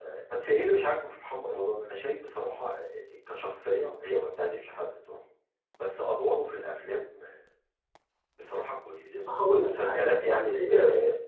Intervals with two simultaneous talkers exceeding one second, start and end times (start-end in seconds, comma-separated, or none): 9.1-10.7